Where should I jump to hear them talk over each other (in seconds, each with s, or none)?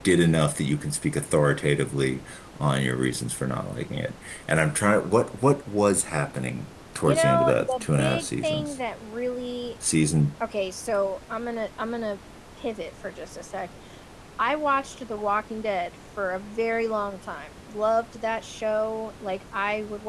7.1 s